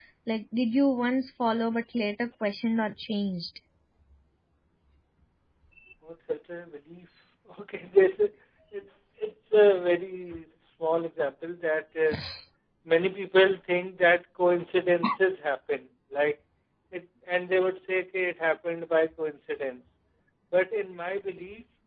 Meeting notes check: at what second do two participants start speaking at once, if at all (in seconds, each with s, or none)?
none